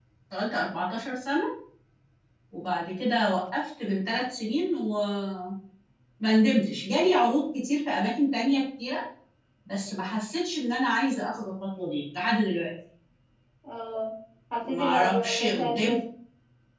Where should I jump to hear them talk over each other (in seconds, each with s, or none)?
14.6 s